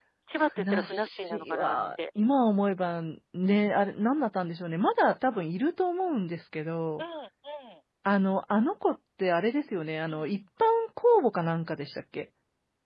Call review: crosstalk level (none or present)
present